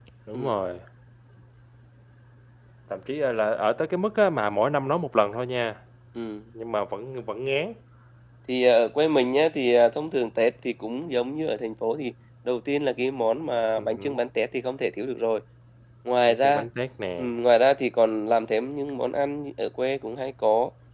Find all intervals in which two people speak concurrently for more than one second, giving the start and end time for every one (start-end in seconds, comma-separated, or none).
none